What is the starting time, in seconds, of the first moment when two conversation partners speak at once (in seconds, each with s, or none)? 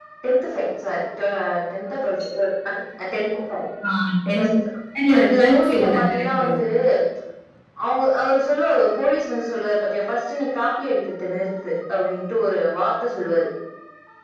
5.2 s